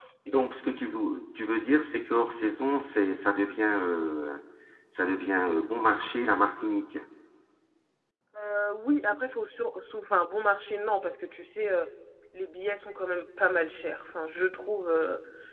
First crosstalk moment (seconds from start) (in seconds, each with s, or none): none